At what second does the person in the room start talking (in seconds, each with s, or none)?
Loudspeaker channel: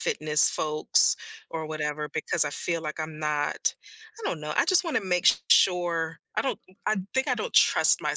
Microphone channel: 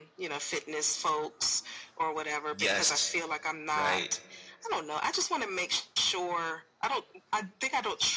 2.5 s